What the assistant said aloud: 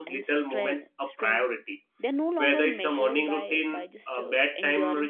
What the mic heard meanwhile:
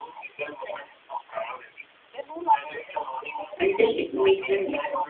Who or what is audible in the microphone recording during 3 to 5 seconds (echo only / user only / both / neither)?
both